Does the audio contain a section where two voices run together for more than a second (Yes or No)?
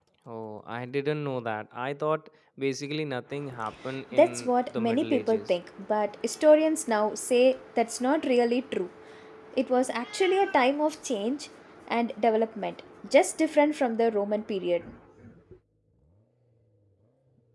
Yes